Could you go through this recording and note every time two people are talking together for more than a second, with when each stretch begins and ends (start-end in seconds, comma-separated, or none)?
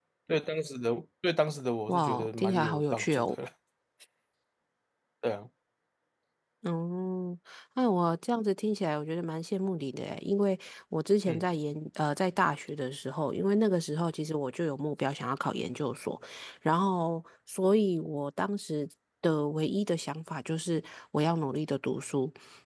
1.9-3.4